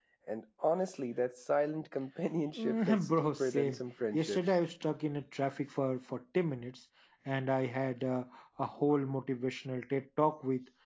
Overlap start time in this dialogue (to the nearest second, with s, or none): 3 s